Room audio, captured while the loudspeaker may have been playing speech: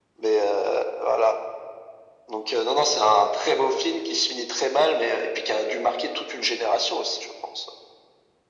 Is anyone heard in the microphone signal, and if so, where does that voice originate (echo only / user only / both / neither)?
echo only